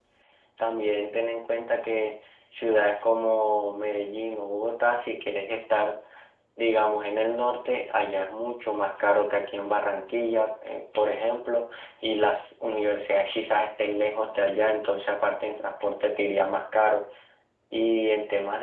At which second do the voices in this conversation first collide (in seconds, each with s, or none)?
none